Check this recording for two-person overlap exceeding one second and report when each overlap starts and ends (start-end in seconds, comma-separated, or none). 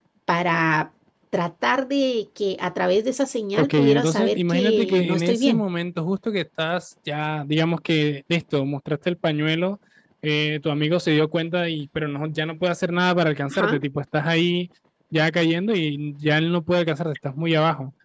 3.5-5.6